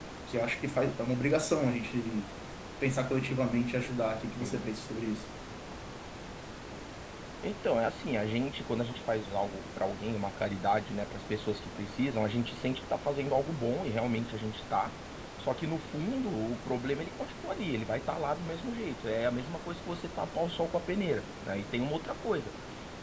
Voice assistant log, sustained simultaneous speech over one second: none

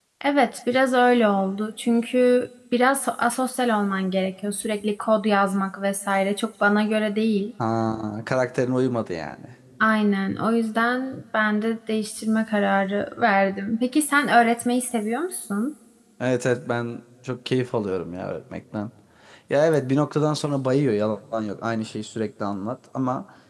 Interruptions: none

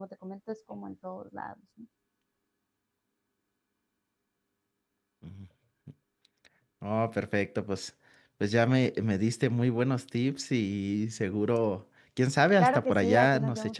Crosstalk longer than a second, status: present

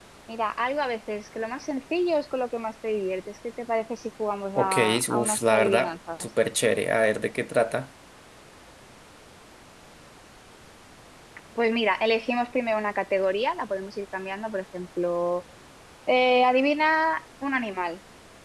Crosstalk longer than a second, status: present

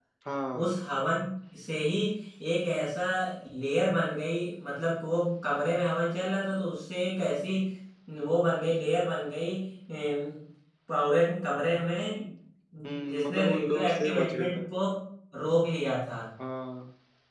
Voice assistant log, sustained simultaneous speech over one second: present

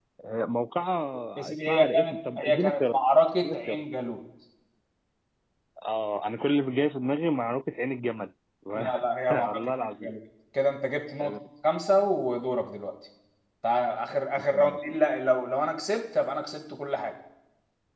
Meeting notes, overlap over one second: present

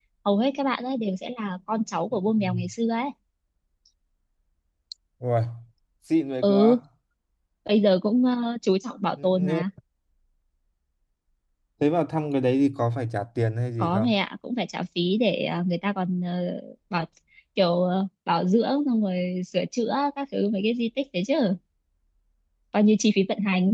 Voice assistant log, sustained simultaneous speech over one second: none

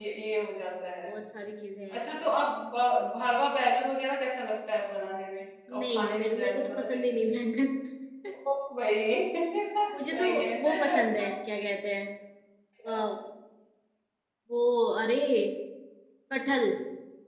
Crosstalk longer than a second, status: present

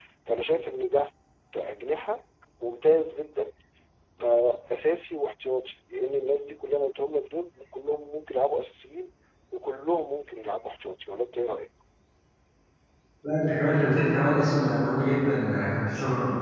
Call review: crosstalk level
none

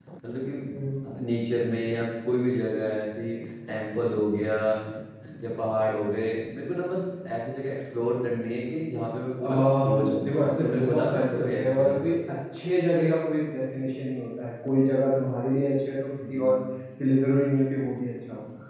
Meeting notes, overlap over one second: present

